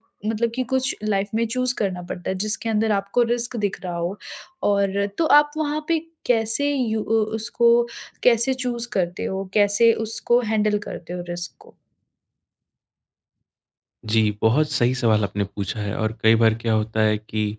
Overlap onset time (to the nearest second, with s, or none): none